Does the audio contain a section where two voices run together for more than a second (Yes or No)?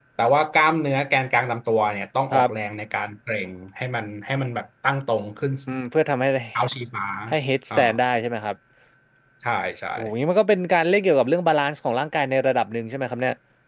No